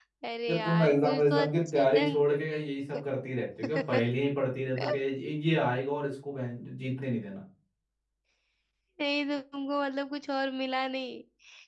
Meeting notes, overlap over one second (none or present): present